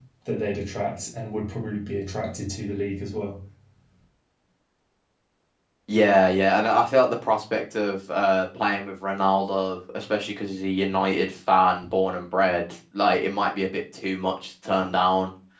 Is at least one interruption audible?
No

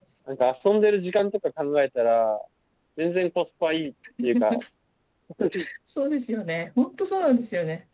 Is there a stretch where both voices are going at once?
No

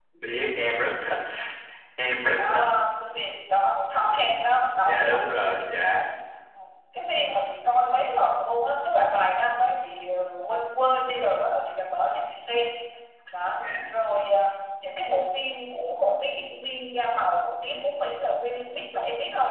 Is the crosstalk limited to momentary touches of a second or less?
Yes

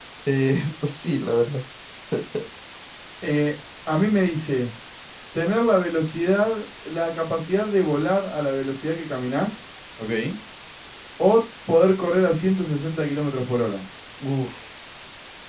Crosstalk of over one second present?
No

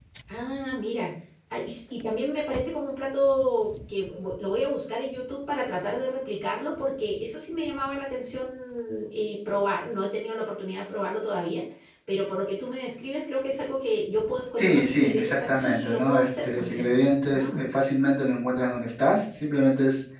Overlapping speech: Yes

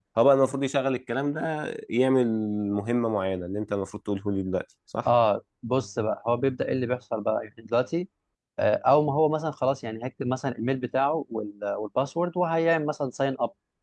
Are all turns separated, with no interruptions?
Yes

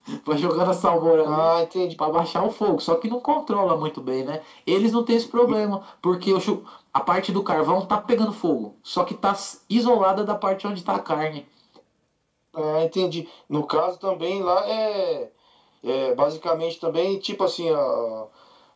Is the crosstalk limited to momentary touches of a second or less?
Yes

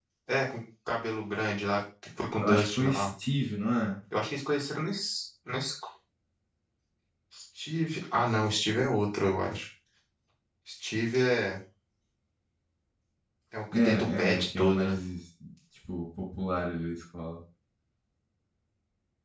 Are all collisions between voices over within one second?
No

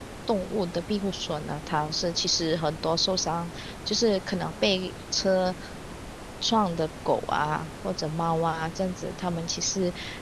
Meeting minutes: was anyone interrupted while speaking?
No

